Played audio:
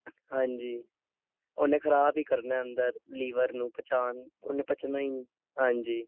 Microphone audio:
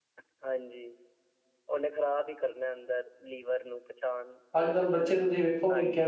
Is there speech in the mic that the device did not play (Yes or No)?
Yes